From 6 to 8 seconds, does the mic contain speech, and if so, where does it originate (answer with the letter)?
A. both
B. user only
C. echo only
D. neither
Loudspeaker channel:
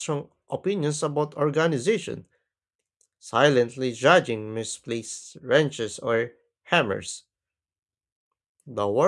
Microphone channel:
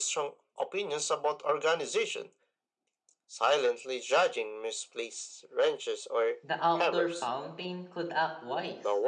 A